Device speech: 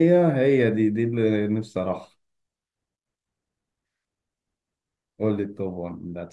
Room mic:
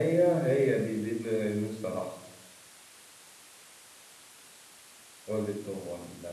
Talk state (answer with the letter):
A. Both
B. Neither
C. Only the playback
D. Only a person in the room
C